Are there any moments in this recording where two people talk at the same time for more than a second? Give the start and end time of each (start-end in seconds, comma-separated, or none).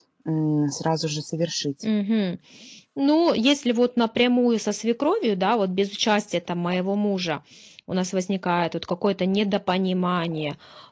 none